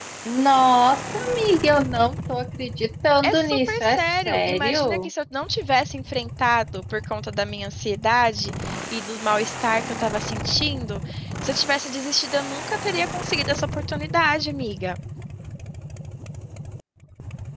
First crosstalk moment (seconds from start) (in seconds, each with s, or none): 3.2 s